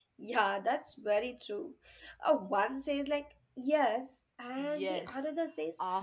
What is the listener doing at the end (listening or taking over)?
taking over